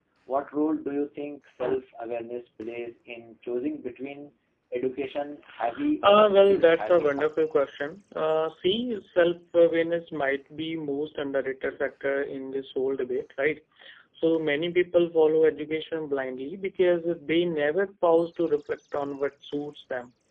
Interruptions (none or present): present